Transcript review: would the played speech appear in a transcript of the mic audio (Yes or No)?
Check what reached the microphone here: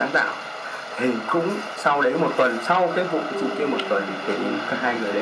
Yes